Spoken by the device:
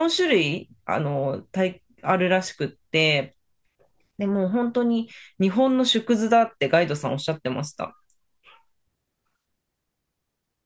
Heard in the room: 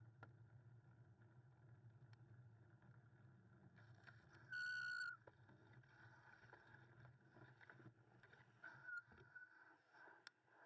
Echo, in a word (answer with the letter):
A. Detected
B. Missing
B